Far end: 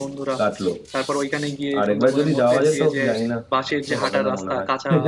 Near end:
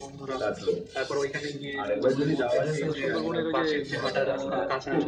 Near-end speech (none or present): present